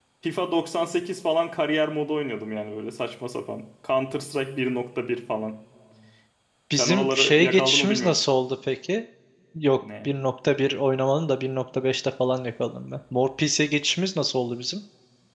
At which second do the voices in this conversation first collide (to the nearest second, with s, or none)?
7 s